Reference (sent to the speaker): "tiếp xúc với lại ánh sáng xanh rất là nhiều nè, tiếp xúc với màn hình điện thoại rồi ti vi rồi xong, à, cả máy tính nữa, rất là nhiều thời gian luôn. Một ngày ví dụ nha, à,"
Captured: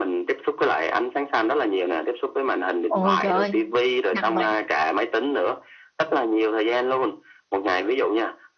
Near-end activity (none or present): present